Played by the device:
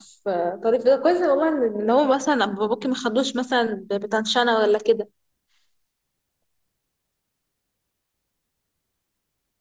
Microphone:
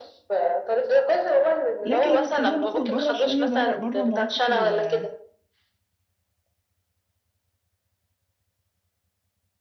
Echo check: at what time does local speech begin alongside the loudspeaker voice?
1.9 s

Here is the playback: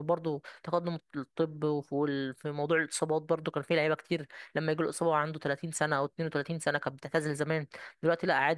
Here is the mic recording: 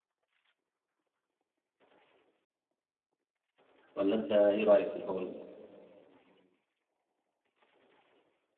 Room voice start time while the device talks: 4.0 s

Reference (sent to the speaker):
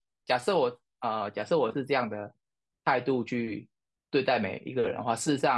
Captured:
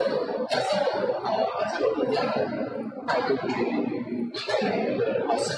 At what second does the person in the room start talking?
none

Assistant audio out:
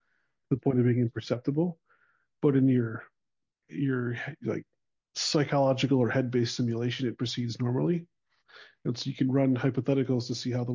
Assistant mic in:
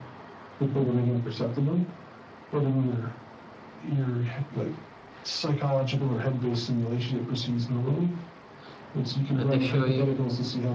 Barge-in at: 9.3 s

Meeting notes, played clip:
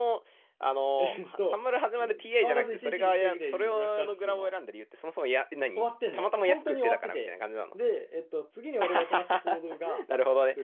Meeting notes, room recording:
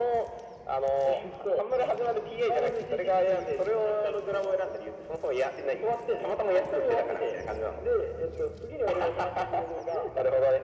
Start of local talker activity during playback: none

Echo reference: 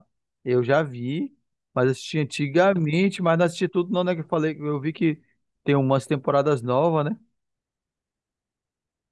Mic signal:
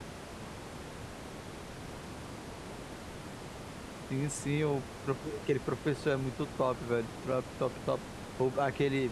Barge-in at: 4.1 s

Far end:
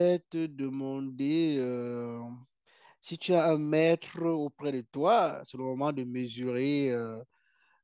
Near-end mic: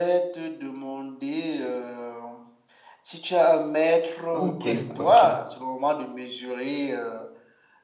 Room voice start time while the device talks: 4.3 s

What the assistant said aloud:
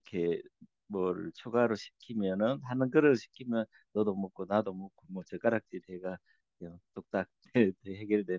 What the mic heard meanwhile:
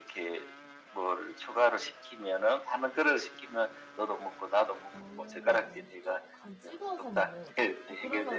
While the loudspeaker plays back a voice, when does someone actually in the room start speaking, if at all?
4.9 s

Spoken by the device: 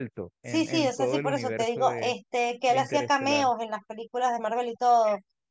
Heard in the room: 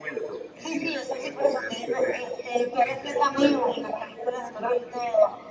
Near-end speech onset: none

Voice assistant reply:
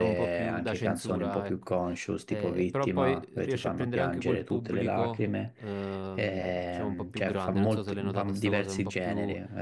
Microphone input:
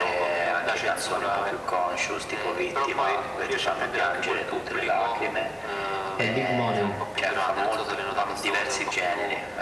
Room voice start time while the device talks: 6.2 s

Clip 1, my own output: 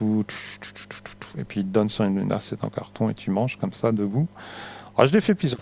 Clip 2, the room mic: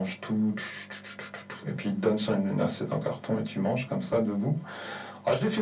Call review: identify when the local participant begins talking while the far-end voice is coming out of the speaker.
none

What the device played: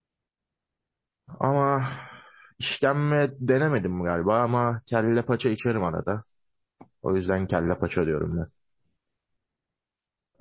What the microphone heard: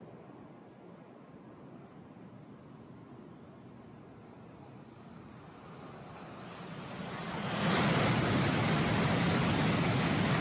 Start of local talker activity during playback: none

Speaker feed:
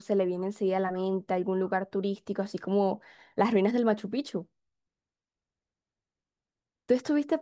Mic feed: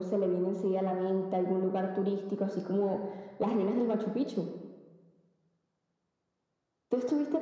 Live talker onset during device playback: none

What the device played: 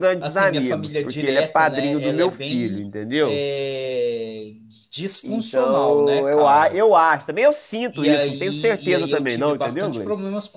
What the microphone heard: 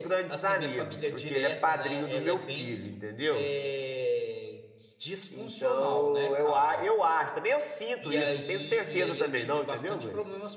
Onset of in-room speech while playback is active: none

